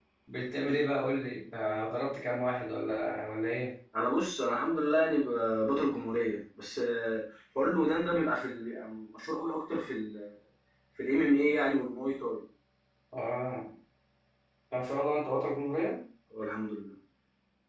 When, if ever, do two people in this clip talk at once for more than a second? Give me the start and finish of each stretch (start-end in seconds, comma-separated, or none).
none